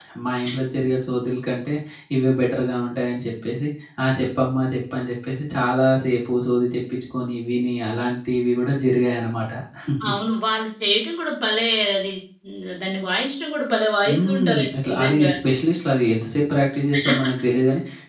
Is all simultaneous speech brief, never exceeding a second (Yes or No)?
No